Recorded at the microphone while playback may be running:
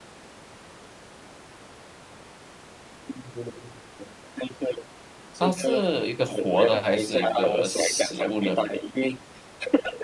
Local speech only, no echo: 它是一个活的还是一个死物呢？

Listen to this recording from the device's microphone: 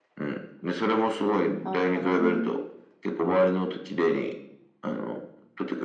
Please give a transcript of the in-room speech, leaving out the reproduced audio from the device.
ああ、なるほどね。

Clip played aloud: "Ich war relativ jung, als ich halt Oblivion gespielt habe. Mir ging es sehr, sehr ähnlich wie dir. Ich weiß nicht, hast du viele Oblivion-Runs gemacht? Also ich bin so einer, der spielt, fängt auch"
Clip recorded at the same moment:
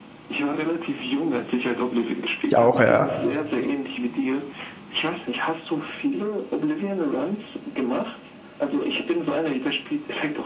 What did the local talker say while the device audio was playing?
auch, ja.

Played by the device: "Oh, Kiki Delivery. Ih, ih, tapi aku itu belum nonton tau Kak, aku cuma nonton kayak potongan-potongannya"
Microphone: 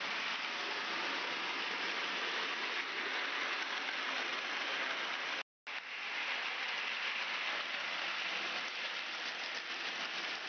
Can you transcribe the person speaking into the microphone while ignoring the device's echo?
none

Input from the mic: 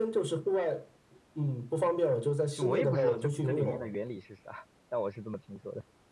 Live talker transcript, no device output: 其实我也不知道这这里面的原理是啥，但我是这么听说的。

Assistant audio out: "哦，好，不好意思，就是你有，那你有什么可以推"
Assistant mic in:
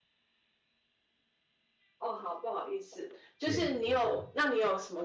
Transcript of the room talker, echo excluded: 电影，就是了

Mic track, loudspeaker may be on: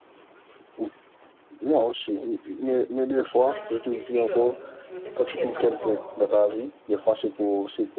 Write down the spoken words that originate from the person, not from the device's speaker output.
quand ils s'écrivent sur n'importe quelle plateforme,

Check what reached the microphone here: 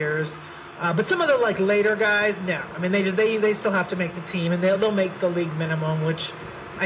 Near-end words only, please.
none

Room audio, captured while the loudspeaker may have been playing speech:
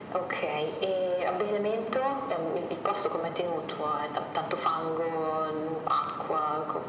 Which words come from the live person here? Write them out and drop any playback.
none

